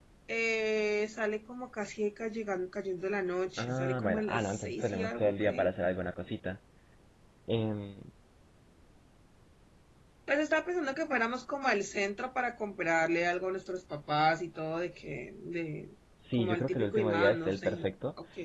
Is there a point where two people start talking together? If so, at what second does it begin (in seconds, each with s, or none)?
3.6 s